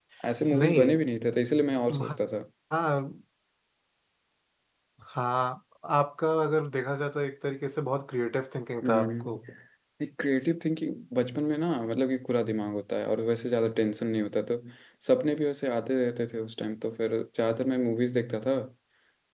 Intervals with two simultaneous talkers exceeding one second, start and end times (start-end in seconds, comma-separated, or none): none